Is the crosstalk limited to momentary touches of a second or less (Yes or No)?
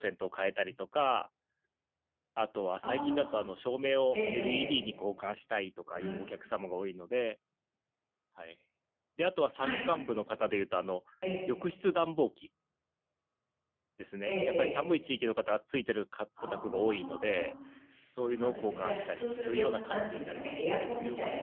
No